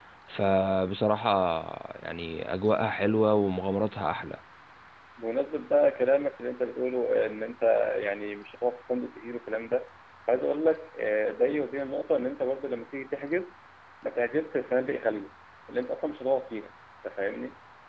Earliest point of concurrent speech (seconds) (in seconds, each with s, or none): none